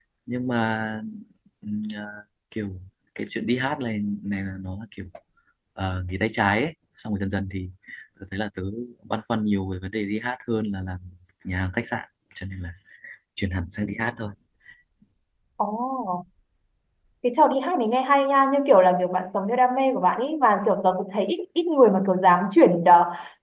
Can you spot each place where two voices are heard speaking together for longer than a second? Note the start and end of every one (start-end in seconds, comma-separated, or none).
none